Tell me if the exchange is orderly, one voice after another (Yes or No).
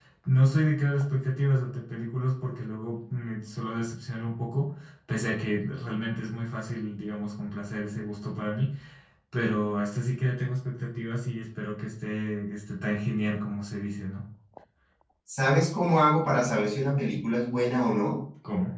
Yes